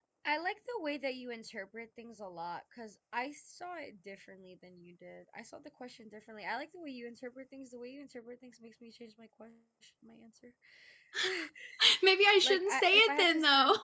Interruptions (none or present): present